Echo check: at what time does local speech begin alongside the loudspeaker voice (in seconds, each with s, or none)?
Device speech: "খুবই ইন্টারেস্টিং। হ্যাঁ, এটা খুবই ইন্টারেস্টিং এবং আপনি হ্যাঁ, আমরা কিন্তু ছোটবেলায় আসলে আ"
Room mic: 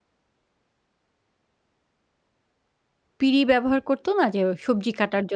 3.2 s